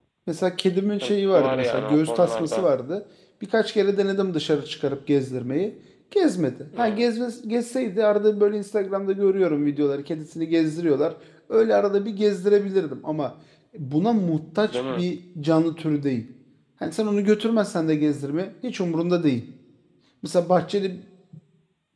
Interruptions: present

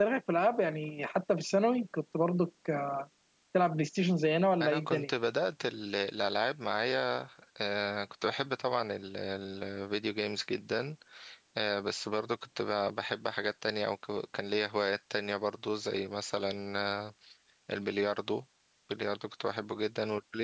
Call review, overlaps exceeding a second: none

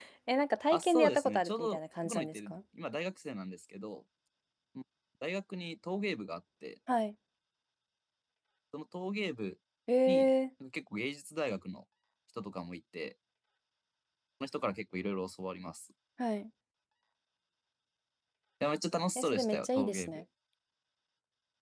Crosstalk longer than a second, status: present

